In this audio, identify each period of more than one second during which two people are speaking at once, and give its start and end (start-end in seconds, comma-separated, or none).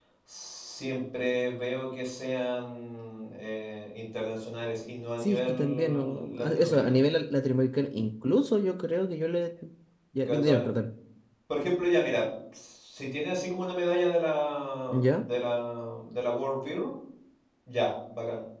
5.2-7.0